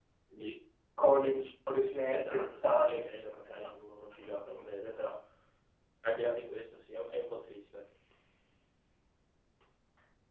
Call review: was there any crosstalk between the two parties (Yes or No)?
Yes